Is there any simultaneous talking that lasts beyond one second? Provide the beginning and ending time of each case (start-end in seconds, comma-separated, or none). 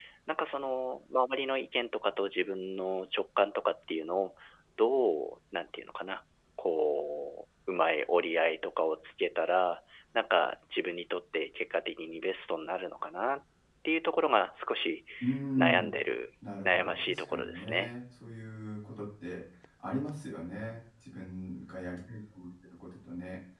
16.6-18.0